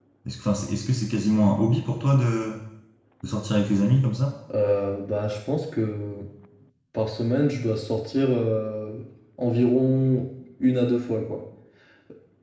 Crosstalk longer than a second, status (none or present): none